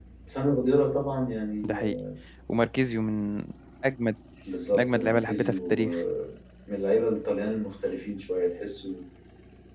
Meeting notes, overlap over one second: present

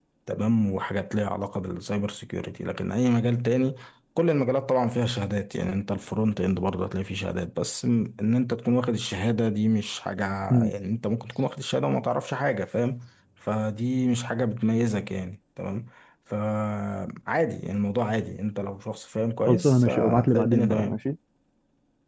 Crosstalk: present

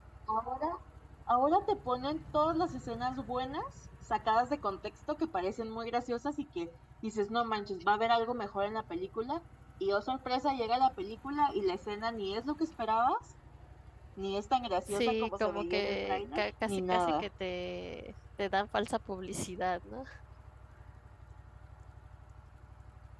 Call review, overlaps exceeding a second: present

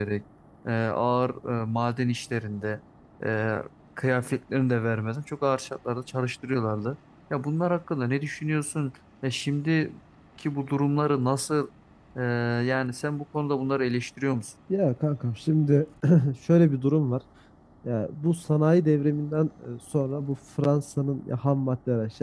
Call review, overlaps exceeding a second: none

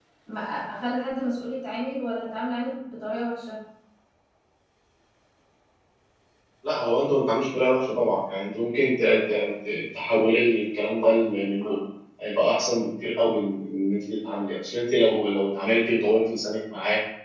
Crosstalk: none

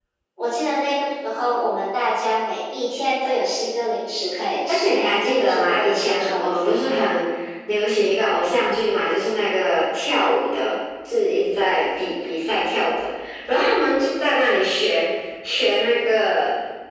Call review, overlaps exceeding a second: present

